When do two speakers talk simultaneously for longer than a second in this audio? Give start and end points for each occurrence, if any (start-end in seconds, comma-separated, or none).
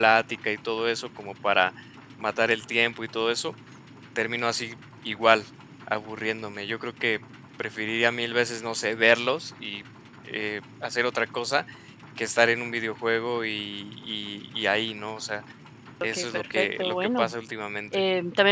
16.0-17.3